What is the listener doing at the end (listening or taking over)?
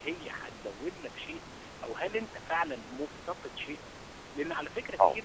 listening